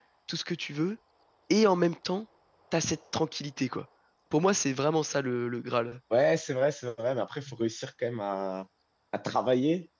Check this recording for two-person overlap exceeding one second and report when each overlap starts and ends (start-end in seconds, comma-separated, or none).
none